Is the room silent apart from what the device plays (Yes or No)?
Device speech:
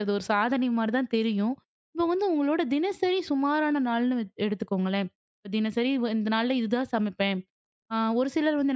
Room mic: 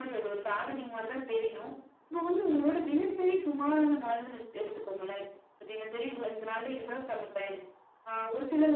Yes